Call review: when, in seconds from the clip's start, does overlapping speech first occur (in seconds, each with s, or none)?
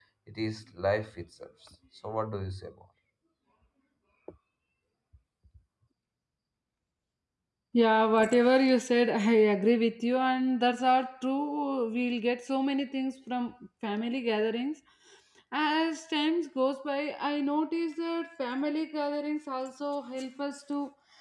none